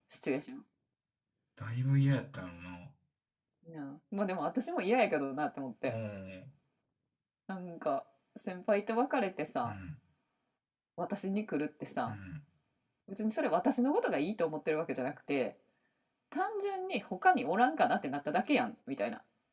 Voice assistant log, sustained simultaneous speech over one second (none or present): none